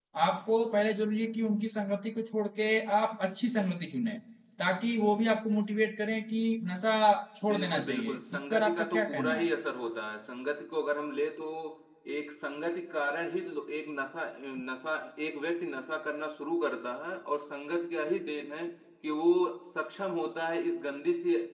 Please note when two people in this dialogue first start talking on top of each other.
7.5 s

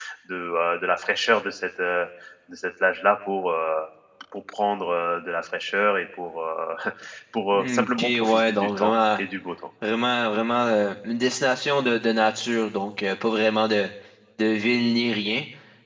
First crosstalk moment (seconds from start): 7.5 s

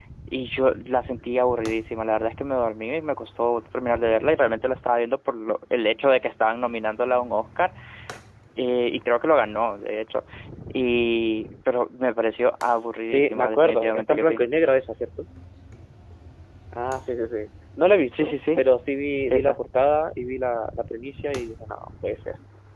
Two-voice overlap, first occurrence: 13.1 s

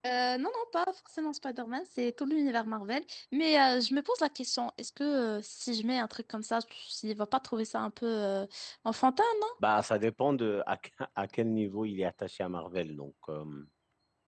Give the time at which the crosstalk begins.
none

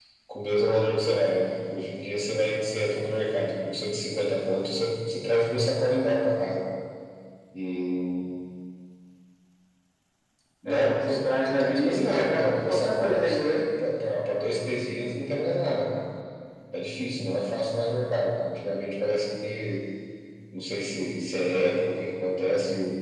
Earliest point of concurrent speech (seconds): 10.7 s

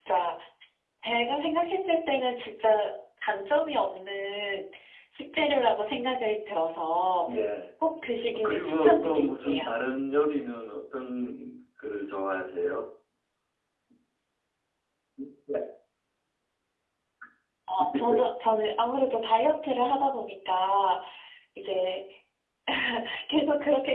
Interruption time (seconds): 8.3 s

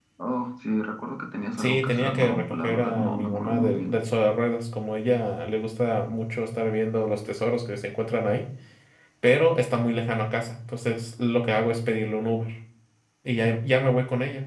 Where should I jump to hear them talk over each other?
1.6 s

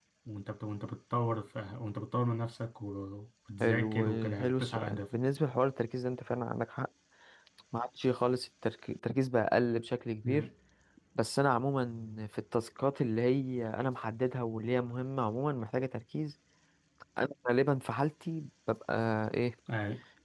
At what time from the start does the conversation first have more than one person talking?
3.6 s

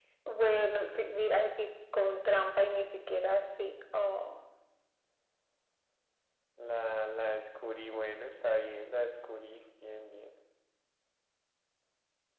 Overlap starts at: none

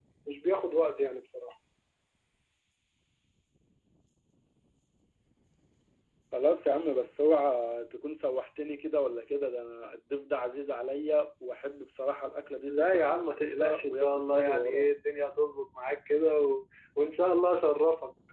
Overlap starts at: 12.7 s

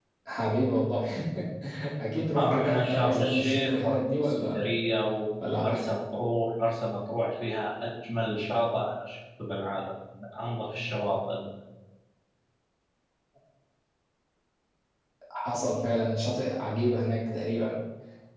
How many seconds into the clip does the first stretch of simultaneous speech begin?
2.4 s

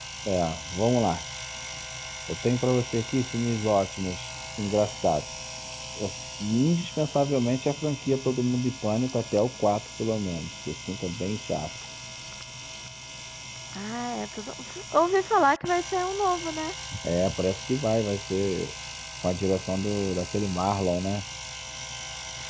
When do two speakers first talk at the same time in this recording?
none

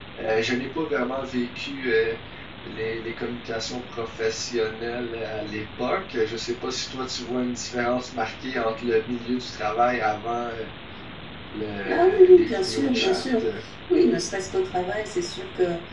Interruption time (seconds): 11.9 s

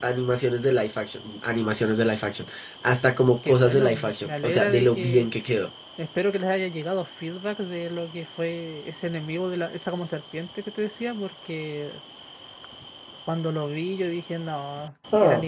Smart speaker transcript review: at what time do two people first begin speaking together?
3.4 s

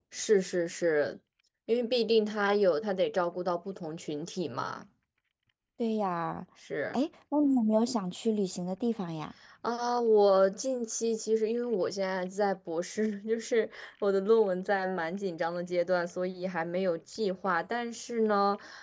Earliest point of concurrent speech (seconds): none

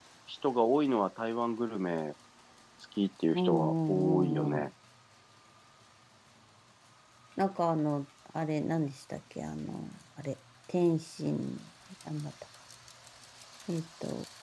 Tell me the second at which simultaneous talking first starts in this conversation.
3.3 s

